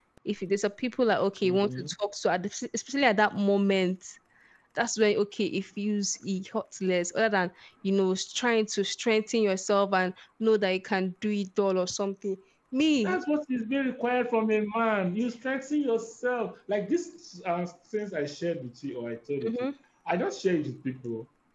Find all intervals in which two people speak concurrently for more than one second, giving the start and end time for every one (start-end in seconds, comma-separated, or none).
none